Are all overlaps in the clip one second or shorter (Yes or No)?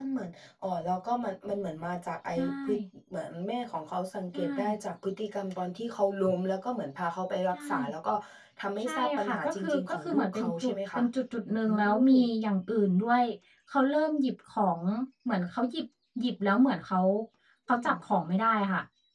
No